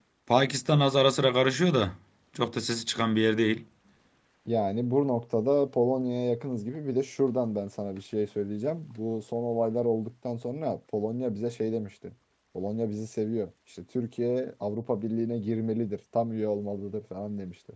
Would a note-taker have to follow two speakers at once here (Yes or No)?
No